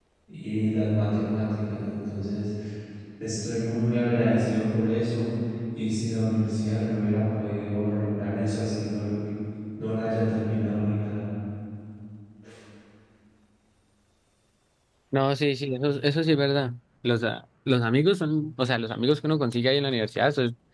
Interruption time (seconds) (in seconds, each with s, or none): none